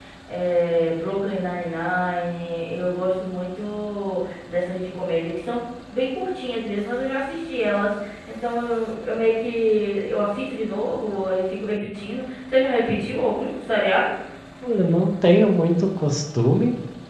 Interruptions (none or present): none